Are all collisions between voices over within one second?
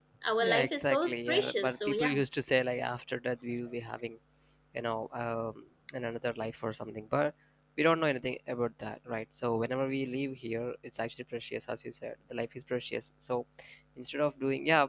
No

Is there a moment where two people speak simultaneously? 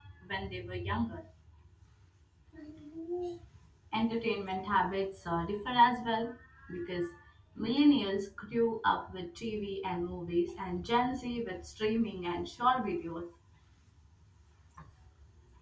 No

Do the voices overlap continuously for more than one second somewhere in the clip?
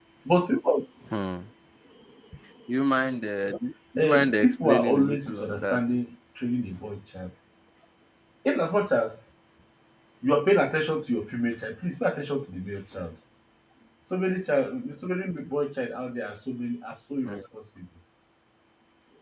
Yes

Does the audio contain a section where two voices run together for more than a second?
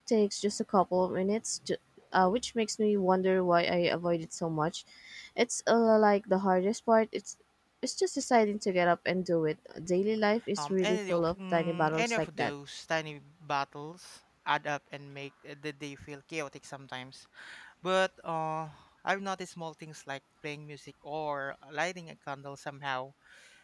Yes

